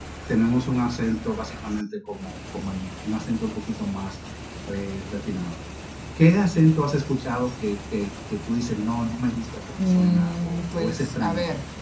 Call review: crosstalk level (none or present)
present